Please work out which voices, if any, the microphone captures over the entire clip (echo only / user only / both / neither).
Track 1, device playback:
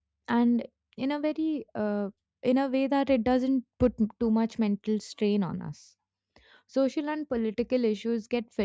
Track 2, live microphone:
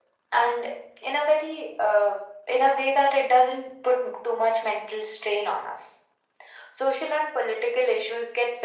echo only